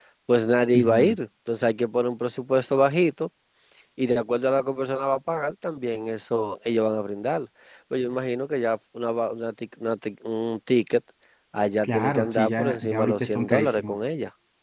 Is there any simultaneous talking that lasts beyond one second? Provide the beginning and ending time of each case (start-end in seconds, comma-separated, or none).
11.8-14.0